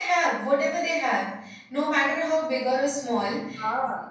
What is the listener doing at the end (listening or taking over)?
listening